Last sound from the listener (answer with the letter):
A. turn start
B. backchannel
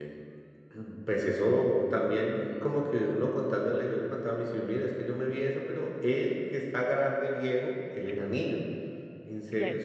B